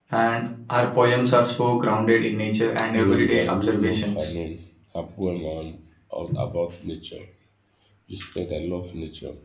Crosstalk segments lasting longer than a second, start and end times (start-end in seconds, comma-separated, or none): 2.9-4.3